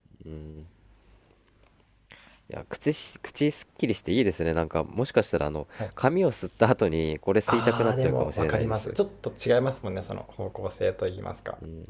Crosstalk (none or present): present